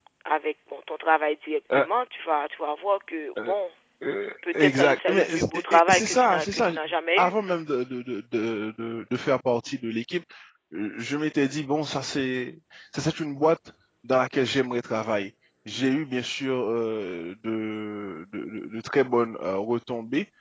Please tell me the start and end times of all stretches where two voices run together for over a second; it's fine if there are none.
4.6-6.7

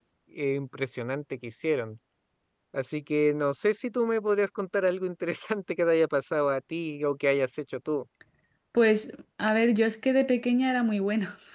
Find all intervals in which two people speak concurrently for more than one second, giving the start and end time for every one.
none

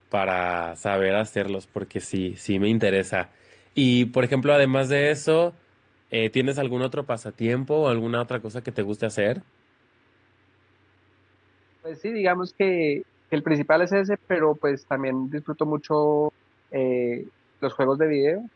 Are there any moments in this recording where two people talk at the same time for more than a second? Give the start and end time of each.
none

